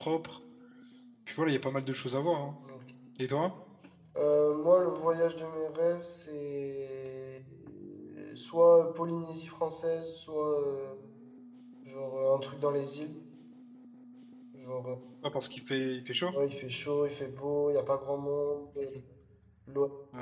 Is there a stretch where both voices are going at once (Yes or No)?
No